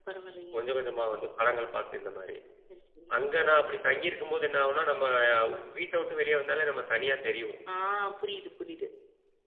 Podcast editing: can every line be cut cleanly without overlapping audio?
Yes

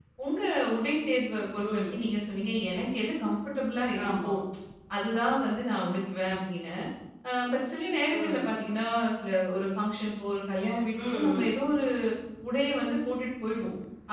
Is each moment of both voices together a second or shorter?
Yes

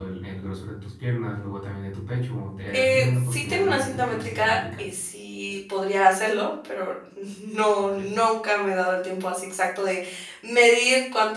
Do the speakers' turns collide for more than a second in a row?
Yes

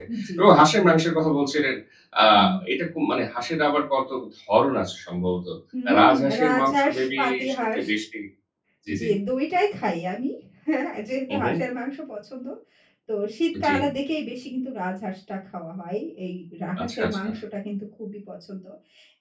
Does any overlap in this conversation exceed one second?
Yes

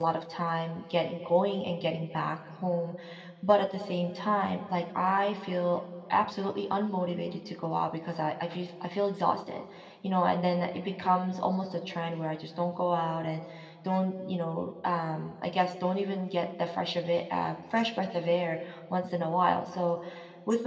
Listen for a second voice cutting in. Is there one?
No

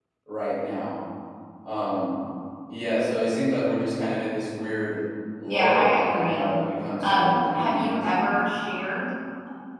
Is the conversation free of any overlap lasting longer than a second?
No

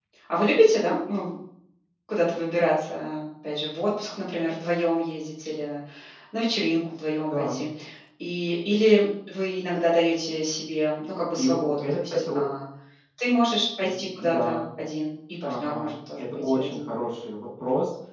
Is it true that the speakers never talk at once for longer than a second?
No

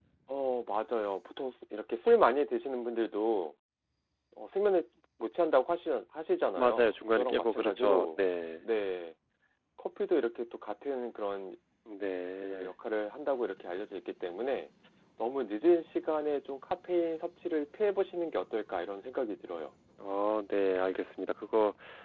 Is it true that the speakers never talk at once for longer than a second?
No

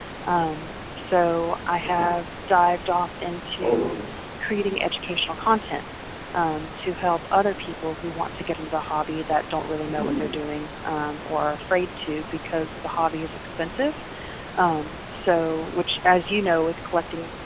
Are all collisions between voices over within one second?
Yes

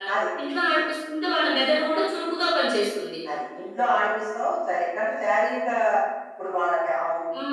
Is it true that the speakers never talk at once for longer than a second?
Yes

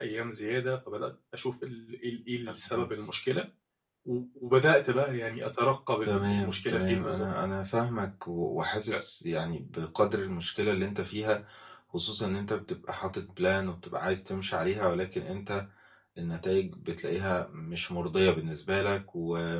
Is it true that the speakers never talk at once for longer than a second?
No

